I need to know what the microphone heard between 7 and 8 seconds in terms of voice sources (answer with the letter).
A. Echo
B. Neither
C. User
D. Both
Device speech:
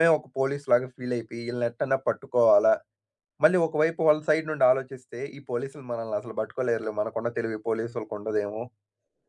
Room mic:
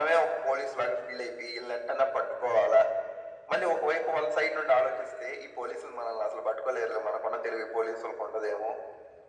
A